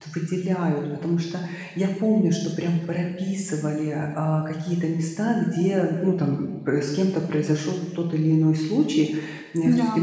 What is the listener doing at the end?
listening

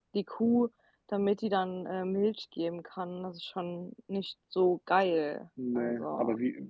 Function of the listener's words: taking over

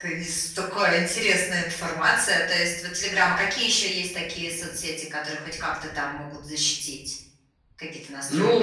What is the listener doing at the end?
taking over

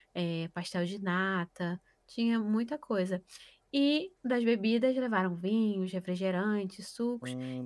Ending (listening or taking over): listening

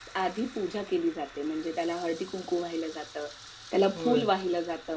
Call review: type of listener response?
listening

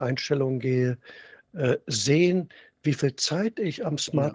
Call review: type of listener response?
listening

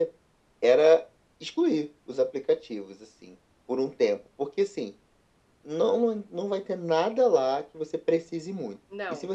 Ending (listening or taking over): listening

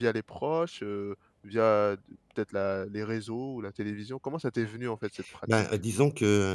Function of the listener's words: taking over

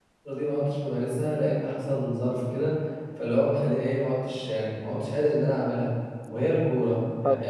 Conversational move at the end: taking over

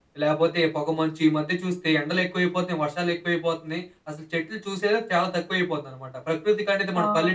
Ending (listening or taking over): listening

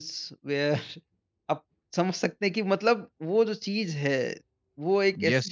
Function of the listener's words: taking over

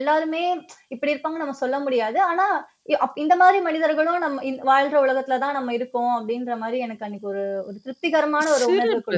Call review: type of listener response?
taking over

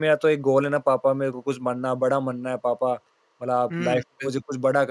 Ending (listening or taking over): listening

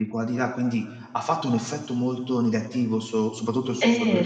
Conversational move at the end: taking over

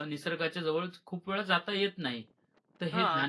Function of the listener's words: listening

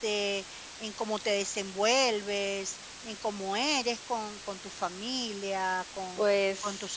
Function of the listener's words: listening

